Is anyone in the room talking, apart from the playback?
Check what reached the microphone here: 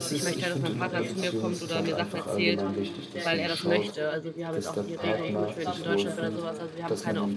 Yes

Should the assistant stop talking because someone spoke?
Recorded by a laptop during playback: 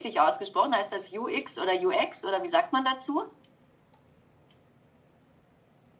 No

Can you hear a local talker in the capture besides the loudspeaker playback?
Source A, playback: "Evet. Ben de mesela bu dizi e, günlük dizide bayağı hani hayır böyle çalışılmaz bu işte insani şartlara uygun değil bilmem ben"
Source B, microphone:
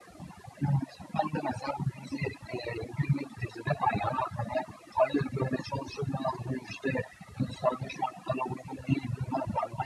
No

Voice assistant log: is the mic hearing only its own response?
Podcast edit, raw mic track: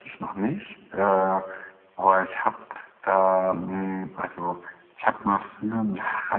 Yes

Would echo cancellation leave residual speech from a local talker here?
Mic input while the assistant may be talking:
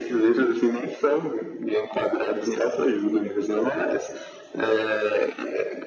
No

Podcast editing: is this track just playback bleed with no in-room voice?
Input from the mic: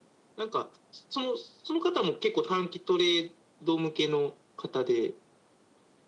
Yes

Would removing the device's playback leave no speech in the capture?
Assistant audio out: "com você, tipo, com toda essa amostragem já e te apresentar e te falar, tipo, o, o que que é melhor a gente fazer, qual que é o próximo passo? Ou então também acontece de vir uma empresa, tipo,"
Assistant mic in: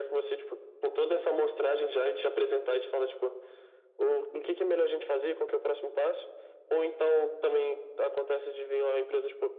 Yes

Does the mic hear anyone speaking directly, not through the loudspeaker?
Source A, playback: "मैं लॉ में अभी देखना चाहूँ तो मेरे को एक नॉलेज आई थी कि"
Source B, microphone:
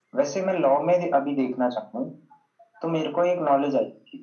No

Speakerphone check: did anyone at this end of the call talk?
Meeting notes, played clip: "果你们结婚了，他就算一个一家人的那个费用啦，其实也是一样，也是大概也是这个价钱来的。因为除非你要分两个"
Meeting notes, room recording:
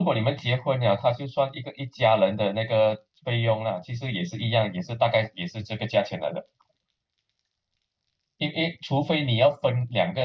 No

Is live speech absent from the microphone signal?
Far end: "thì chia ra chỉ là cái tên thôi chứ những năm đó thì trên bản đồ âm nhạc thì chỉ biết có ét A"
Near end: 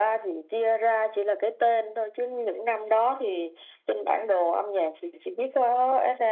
Yes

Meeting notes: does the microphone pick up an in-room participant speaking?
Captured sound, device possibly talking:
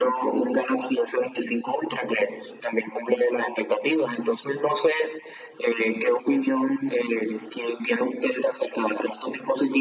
No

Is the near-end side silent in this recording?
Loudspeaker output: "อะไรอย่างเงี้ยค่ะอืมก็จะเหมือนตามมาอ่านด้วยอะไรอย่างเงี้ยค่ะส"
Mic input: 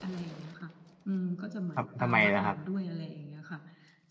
No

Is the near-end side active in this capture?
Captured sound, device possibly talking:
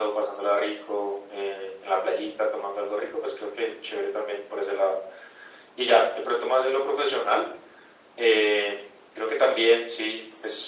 No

